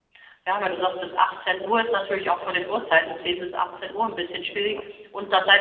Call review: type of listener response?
listening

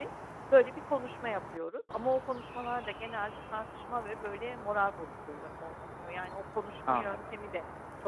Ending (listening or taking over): listening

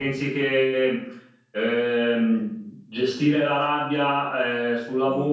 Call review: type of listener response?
listening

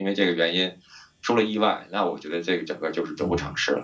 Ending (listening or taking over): taking over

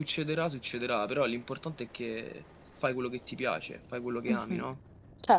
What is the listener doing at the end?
taking over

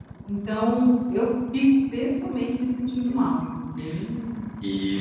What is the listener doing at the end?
taking over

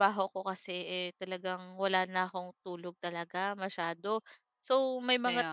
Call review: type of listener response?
listening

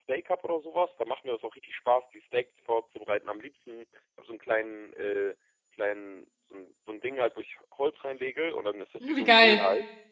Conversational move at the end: listening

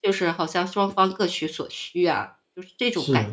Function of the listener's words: taking over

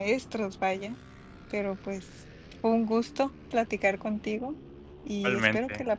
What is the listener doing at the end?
listening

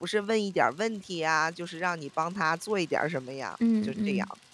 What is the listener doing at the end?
taking over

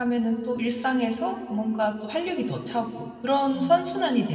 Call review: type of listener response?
listening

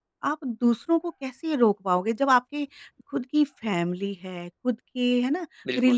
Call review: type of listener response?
listening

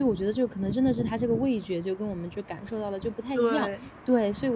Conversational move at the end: listening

